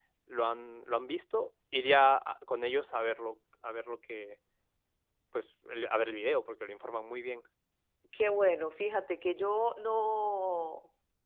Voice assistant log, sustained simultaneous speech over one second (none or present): none